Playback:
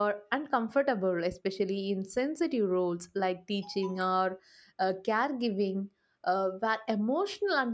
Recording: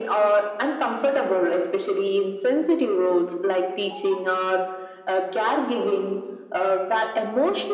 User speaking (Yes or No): No